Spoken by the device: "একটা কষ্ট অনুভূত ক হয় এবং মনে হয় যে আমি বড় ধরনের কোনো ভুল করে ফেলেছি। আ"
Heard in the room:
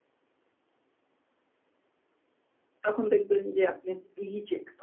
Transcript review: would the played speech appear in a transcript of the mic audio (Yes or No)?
No